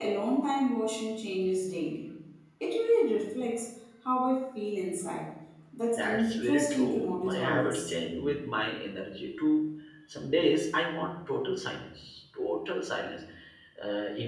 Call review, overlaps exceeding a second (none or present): present